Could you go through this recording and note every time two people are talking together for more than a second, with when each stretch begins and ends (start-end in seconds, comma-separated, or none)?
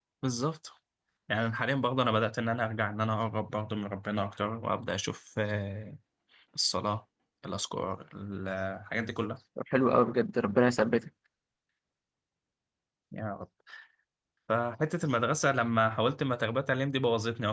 none